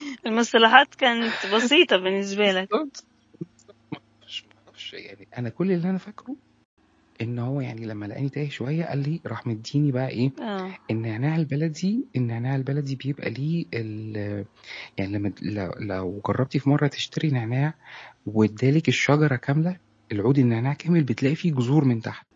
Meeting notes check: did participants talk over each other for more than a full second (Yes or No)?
No